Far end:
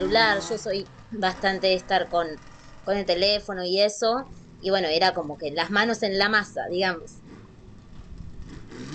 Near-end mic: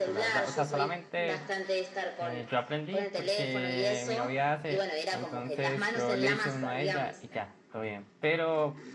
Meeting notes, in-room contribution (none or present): present